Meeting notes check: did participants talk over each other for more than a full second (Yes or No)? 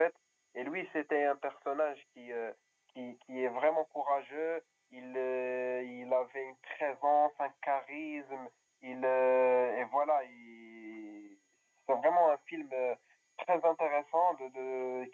No